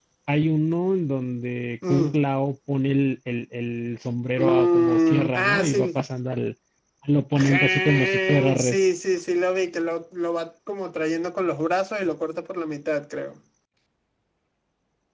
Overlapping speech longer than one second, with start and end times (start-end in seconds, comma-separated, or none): 4.4-6.0, 7.3-8.8